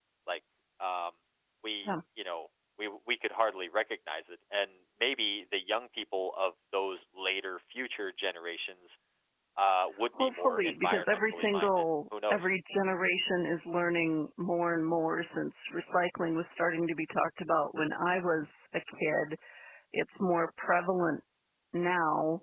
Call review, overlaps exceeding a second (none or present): present